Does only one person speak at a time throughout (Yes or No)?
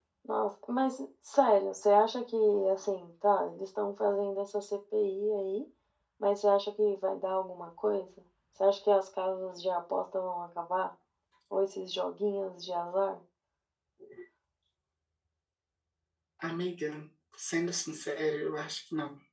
Yes